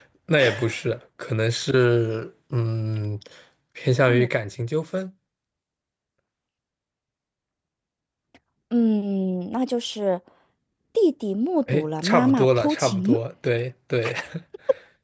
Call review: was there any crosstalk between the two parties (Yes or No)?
Yes